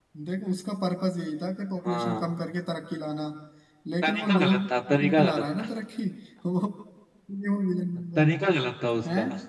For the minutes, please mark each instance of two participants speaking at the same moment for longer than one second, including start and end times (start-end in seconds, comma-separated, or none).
4.0-5.7